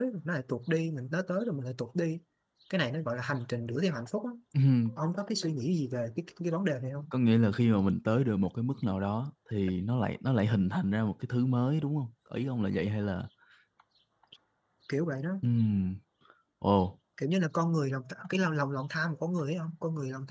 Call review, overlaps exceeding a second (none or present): none